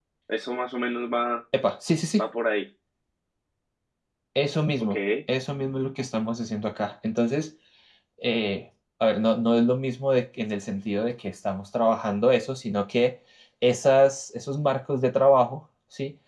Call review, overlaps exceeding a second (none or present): none